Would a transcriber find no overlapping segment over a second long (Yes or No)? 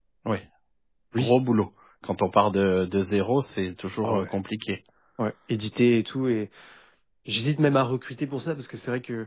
Yes